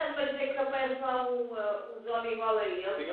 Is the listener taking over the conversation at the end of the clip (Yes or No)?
Yes